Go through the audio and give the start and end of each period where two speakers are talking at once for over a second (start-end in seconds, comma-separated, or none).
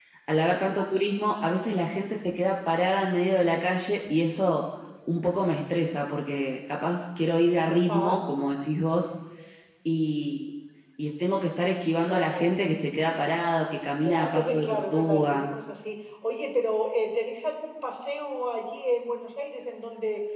14.0-15.5